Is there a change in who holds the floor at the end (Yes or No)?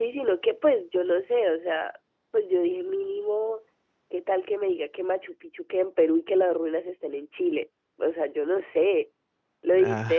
No